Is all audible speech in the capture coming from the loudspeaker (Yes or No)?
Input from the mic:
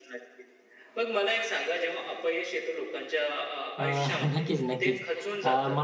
No